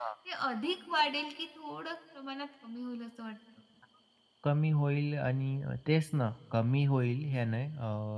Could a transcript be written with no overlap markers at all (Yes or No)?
Yes